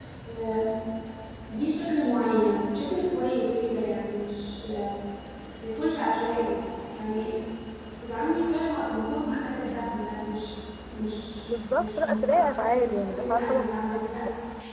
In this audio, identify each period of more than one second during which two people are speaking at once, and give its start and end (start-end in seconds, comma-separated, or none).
11.5-14.2